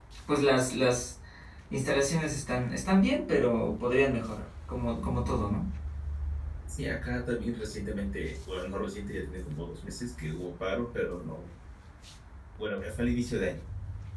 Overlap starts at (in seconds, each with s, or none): none